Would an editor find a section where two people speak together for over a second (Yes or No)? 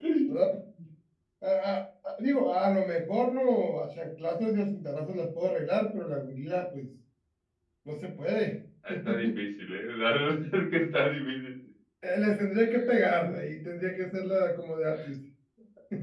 No